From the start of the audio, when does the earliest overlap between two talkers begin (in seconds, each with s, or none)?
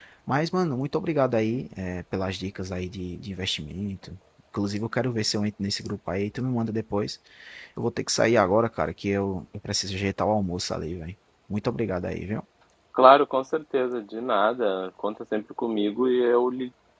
none